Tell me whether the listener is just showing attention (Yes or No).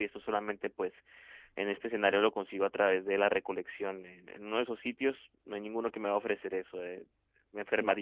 Yes